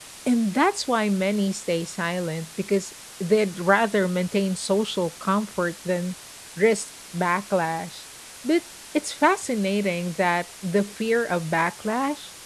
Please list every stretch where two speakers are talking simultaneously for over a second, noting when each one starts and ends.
none

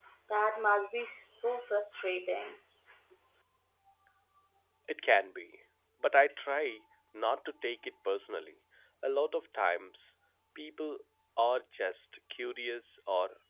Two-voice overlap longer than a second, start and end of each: none

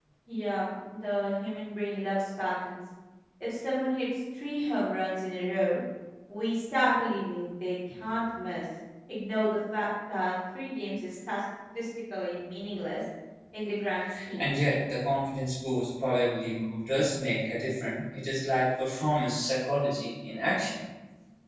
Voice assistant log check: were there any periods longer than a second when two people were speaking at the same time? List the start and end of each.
none

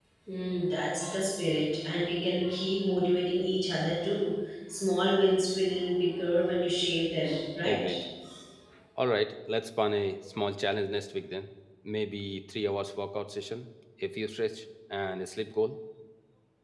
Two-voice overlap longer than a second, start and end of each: none

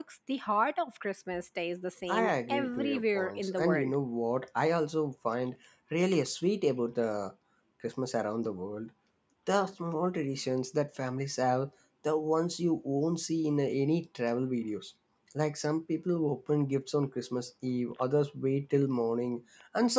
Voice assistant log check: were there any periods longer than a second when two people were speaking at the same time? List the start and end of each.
2.1-3.9

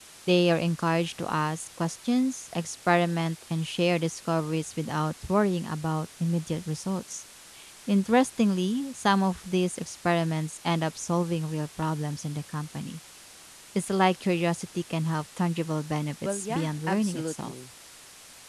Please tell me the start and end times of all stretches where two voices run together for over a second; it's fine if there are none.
16.2-17.5

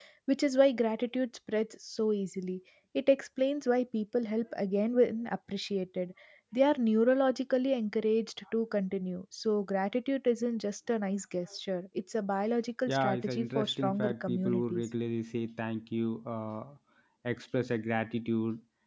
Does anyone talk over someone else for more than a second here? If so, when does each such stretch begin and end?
12.9-14.9

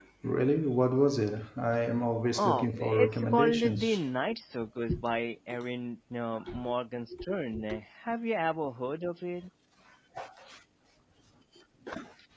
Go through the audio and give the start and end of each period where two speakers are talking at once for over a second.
2.3-4.0

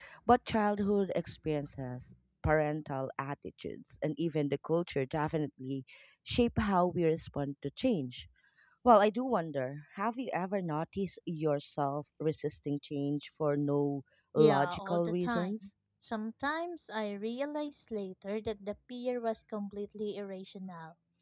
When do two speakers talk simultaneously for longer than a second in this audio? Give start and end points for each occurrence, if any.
14.4-15.7

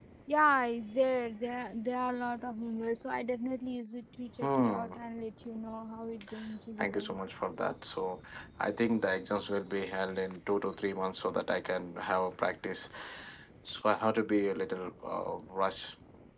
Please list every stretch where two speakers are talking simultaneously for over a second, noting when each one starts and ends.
none

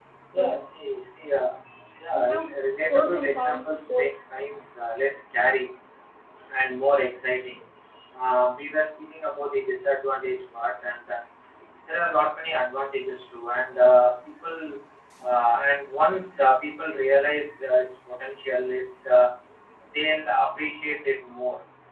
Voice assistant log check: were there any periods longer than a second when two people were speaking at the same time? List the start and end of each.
2.9-4.2

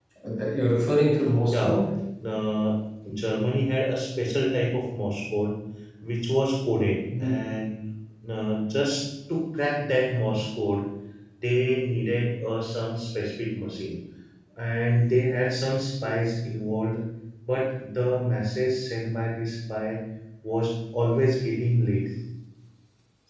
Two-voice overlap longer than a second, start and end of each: none

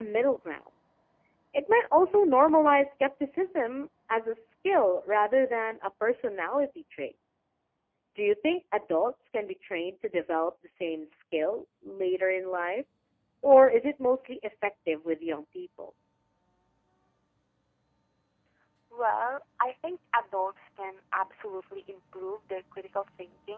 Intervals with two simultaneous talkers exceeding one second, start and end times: none

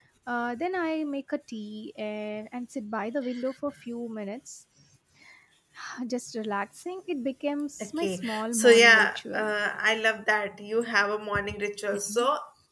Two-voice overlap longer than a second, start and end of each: 7.8-9.5

